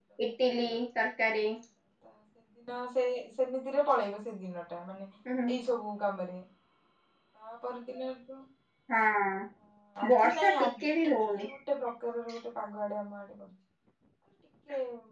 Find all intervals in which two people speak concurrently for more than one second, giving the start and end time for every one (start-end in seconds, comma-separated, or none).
10.0-11.5